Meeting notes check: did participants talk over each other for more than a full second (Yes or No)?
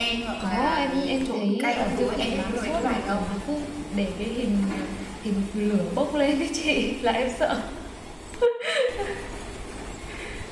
Yes